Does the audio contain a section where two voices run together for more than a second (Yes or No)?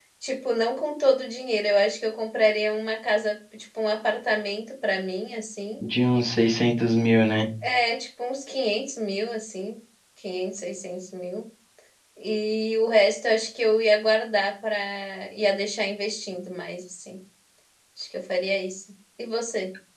No